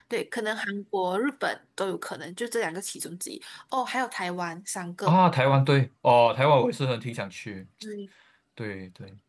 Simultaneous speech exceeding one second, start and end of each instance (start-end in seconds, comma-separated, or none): none